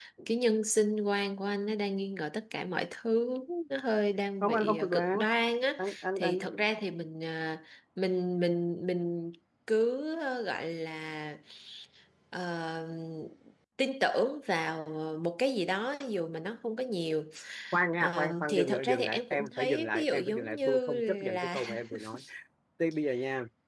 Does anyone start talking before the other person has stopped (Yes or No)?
Yes